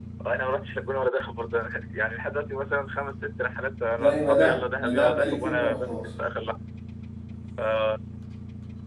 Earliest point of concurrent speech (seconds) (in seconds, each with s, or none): 4.0 s